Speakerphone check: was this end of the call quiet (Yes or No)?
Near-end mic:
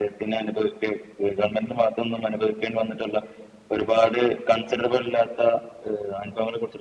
Yes